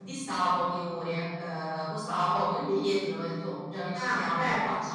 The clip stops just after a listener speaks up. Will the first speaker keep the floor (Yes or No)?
No